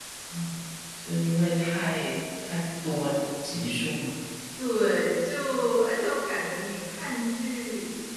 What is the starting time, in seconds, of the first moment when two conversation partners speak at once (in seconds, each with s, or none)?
none